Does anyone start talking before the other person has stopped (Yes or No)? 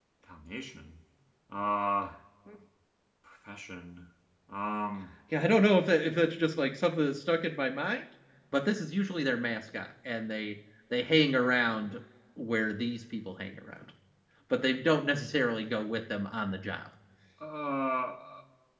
No